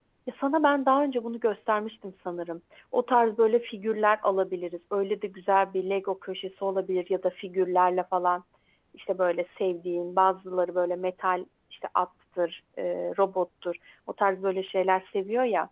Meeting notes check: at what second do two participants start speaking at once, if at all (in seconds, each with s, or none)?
none